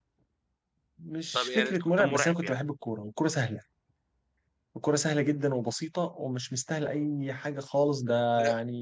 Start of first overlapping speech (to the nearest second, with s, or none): 1 s